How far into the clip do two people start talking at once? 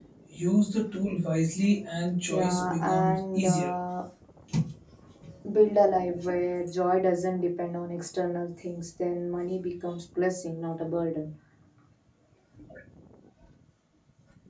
2.3 s

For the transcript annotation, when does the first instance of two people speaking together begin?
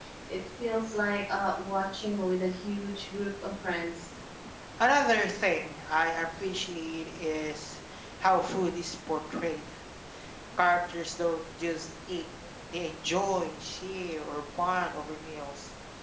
none

